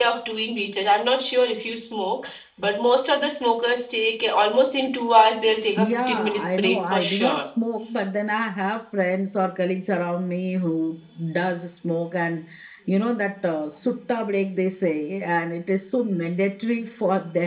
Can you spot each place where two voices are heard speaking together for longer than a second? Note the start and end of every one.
5.8-7.4

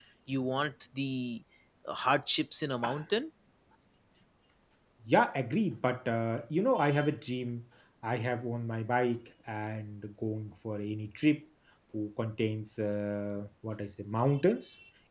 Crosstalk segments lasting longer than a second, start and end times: none

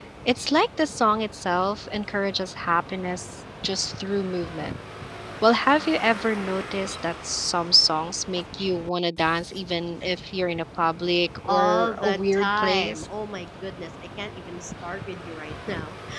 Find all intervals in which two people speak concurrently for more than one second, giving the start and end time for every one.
11.5-13.1

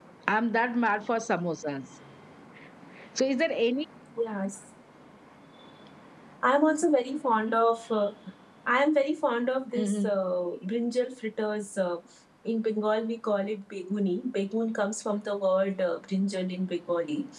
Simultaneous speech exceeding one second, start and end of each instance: none

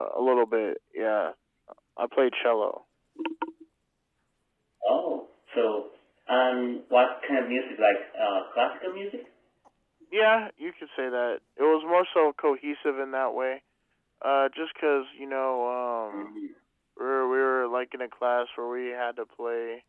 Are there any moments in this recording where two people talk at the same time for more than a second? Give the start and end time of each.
none

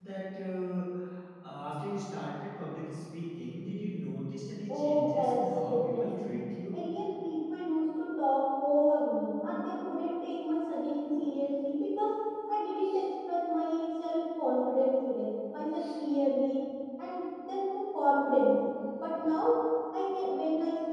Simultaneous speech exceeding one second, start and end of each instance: 4.7-6.2

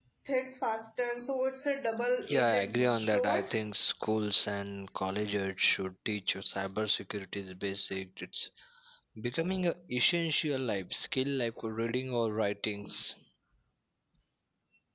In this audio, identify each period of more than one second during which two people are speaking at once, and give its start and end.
2.3-3.5

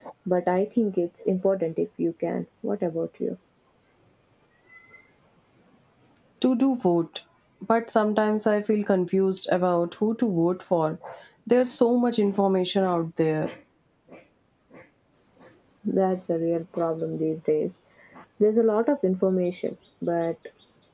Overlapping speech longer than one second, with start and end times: none

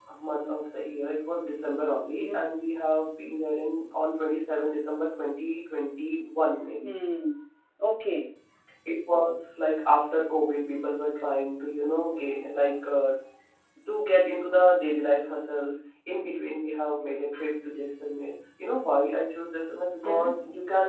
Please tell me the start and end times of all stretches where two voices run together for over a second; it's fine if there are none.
none

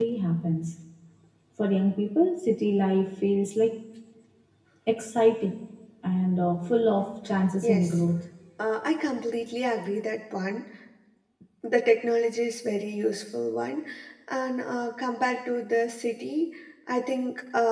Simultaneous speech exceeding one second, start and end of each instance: none

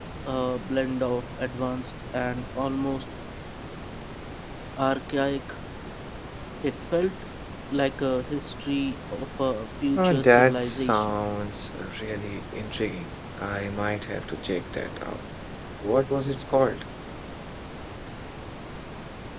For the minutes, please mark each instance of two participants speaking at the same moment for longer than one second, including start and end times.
10.0-11.2

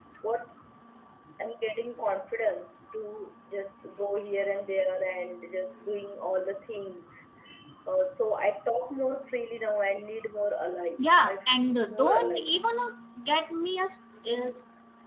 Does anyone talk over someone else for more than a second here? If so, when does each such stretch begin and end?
11.0-12.6

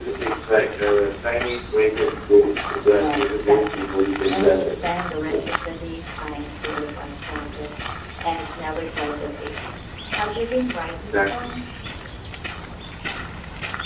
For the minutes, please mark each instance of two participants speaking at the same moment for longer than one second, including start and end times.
2.8-4.8

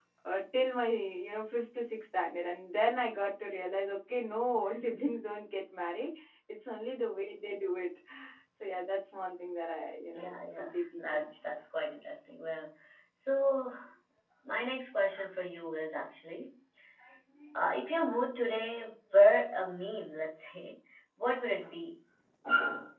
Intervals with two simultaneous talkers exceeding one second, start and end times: 10.1-11.4

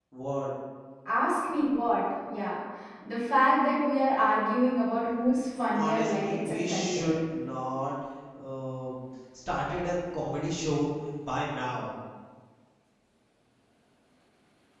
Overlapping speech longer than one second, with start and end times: 5.7-7.1

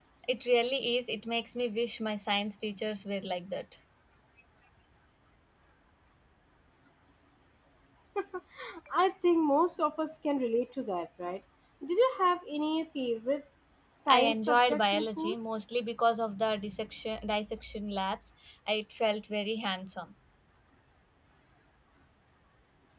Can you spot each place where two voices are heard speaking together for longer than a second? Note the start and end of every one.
14.1-15.3

